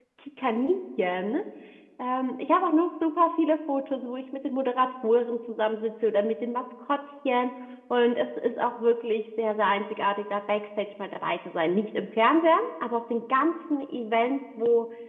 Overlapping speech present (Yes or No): No